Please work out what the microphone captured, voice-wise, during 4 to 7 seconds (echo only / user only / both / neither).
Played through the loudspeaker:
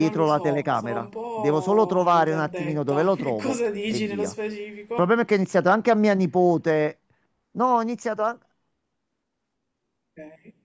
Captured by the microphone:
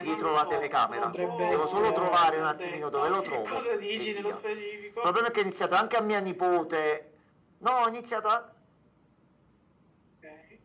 echo only